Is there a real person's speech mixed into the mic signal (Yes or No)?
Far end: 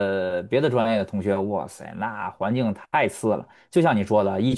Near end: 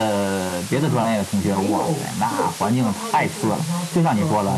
Yes